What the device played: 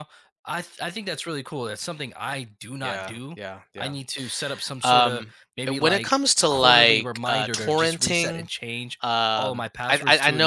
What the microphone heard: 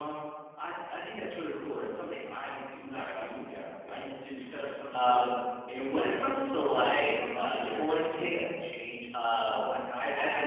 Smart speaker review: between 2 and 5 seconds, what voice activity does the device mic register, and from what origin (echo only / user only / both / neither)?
echo only